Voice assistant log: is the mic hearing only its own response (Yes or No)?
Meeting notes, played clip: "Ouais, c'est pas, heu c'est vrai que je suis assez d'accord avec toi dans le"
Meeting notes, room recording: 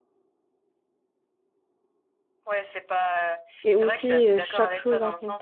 No